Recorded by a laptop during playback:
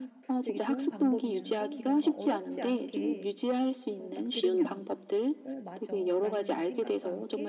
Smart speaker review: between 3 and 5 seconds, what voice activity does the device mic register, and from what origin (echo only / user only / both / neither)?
both